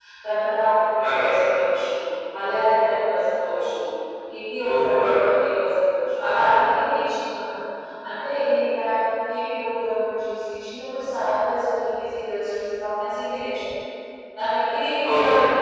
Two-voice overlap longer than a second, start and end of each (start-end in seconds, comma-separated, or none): none